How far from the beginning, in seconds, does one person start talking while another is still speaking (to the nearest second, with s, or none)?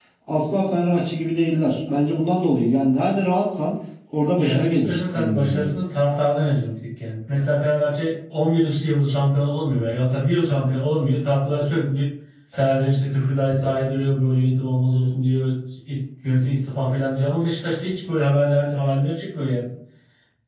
4 s